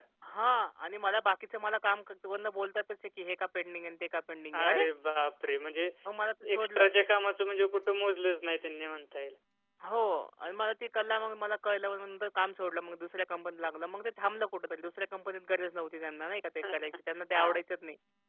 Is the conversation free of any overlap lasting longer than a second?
Yes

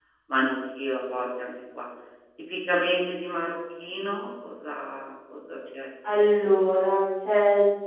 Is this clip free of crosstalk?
Yes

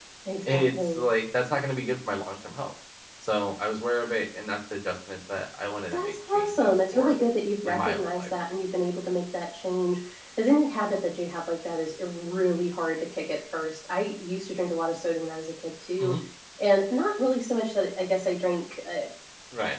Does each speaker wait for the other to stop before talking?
No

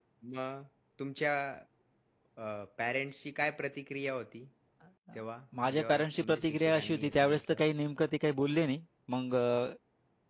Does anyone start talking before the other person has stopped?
Yes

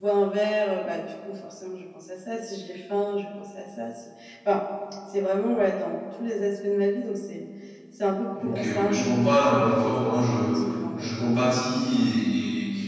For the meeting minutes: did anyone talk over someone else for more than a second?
Yes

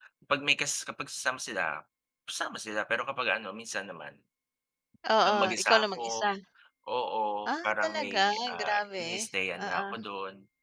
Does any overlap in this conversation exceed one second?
Yes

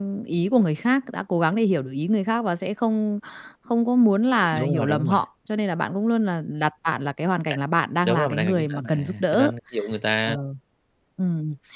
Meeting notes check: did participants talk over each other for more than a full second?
Yes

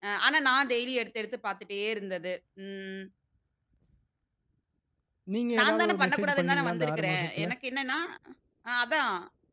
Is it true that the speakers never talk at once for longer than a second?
No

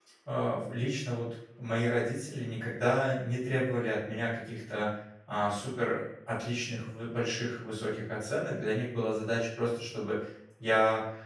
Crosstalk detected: No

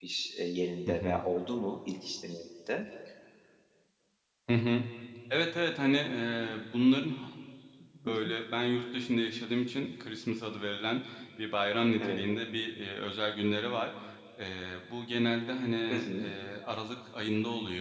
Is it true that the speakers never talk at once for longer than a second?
Yes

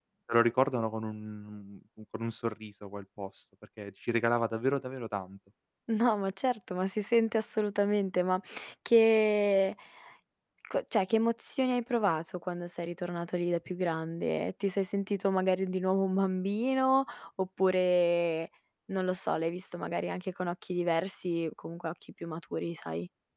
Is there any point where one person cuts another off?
No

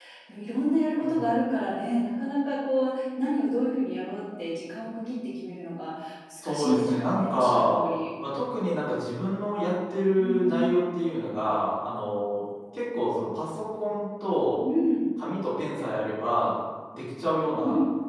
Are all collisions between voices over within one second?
No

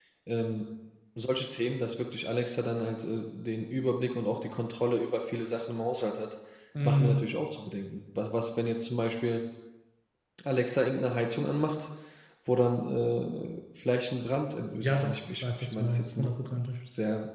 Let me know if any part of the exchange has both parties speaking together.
Yes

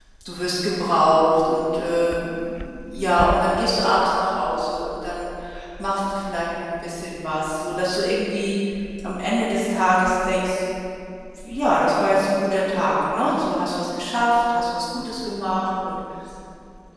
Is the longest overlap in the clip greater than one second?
No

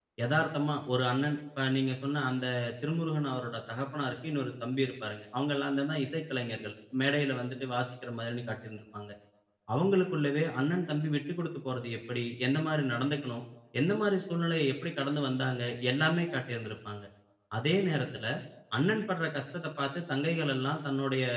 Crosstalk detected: No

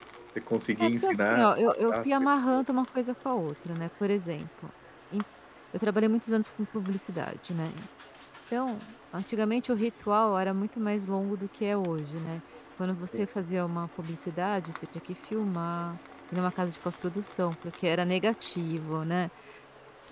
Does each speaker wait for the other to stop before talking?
No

